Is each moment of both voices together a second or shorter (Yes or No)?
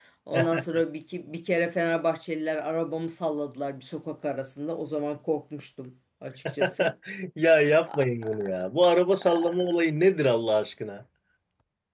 Yes